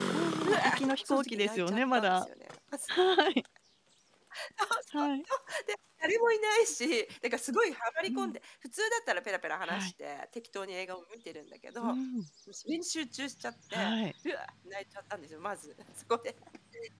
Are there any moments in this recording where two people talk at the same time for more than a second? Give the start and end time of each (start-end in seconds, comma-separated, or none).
0.5-2.3